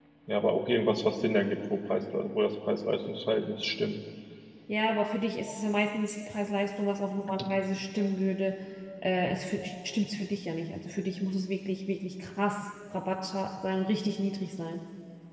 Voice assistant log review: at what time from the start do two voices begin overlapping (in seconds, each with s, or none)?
none